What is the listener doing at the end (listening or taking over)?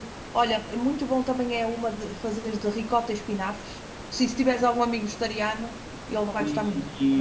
taking over